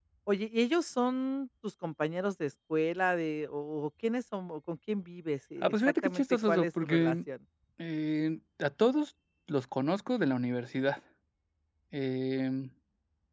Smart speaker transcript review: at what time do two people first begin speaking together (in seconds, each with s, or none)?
5.6 s